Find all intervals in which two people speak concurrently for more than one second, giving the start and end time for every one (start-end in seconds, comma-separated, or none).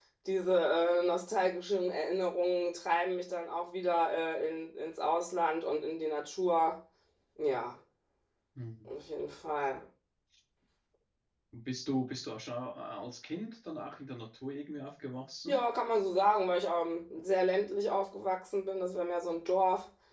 none